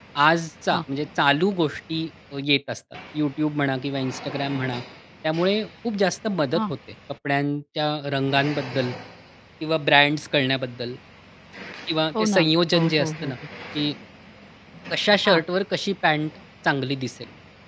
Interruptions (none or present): present